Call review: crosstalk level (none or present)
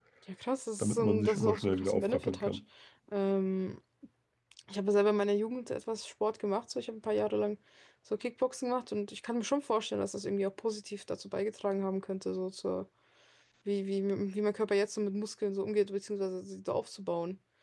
present